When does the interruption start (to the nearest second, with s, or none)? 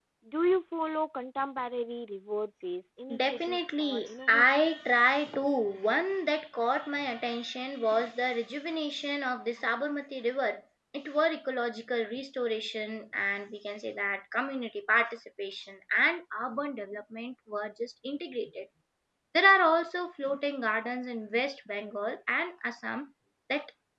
3 s